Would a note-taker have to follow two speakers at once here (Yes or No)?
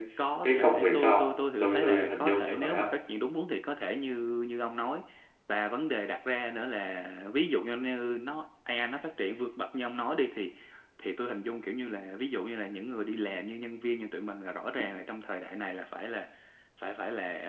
Yes